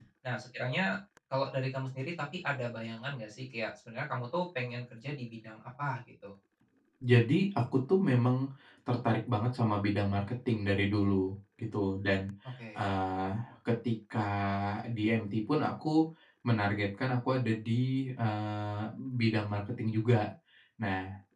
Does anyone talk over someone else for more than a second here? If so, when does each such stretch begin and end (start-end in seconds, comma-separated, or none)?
none